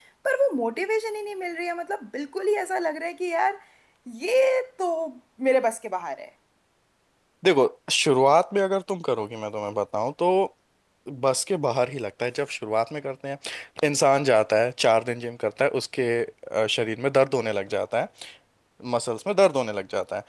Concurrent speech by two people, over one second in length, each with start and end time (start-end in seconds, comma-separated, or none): none